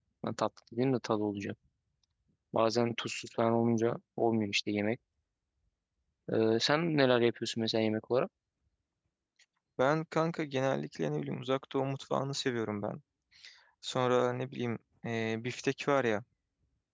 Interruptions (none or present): none